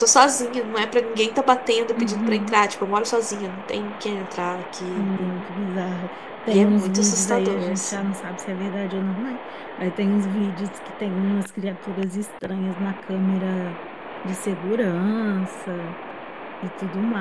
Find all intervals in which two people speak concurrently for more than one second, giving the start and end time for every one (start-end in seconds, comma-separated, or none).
6.5-8.1